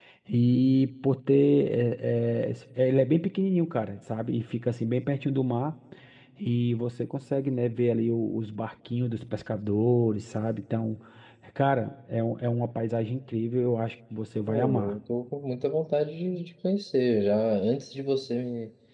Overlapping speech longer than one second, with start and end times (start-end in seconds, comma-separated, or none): none